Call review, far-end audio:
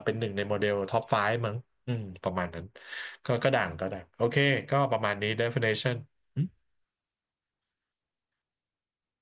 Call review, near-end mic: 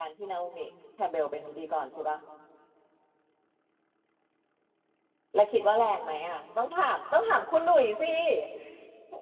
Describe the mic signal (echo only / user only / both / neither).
user only